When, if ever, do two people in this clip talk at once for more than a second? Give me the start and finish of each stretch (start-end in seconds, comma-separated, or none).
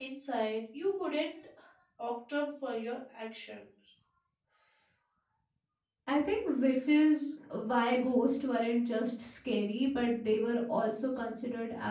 none